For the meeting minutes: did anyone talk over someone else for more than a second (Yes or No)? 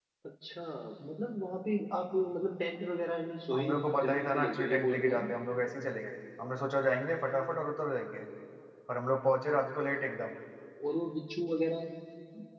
Yes